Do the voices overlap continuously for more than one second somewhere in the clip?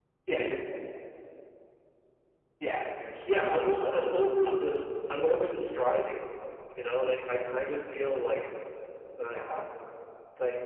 Yes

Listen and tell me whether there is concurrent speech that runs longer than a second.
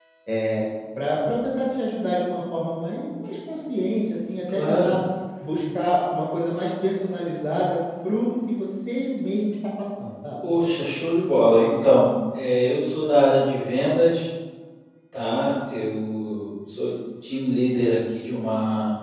No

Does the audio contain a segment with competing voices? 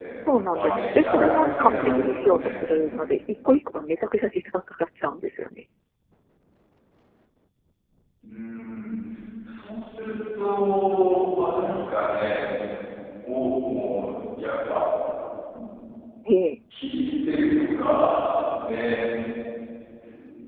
Yes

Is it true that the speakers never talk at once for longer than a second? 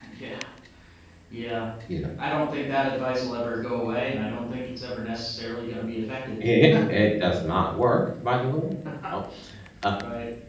Yes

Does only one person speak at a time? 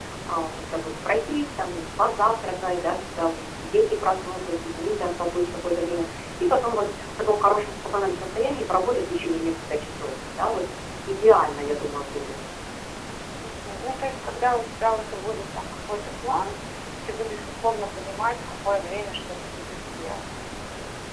Yes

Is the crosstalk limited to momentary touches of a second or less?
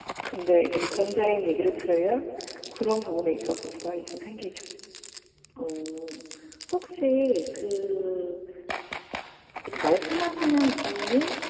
Yes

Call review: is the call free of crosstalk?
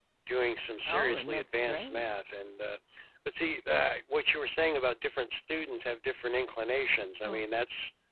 No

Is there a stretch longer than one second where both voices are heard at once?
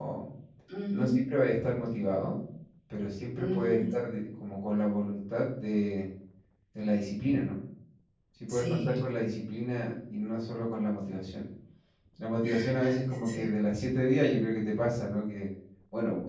No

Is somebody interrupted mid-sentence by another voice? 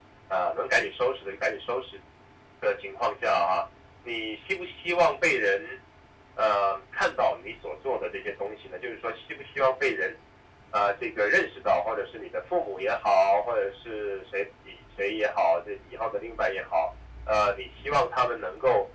No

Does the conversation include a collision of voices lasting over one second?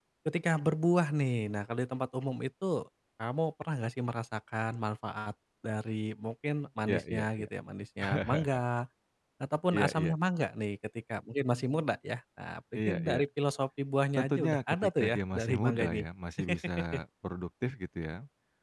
Yes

